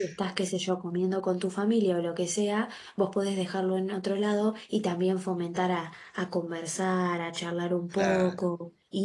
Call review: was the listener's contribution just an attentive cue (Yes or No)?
Yes